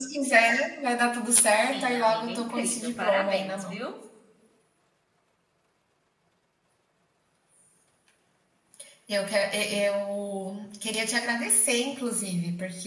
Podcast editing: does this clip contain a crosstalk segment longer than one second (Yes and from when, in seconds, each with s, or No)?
Yes, from 1.5 s